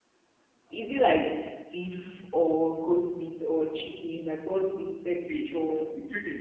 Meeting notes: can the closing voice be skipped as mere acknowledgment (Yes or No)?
No